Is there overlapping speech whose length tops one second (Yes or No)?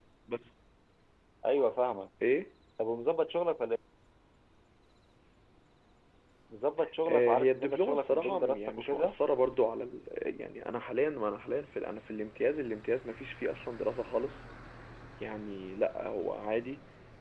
Yes